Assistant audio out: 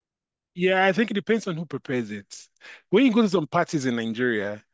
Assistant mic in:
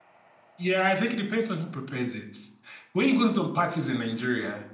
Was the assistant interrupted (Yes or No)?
No